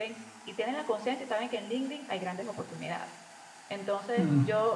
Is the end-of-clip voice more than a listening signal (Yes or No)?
No